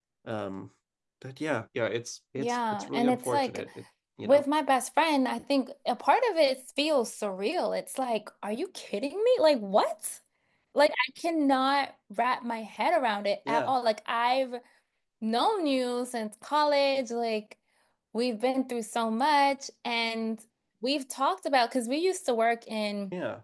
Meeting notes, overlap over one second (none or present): present